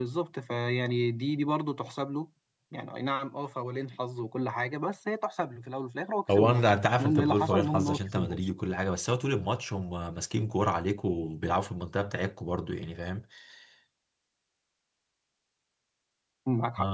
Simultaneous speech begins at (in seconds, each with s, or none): 6.3 s